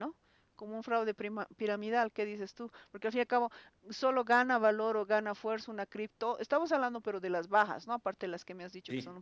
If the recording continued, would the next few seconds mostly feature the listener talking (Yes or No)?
No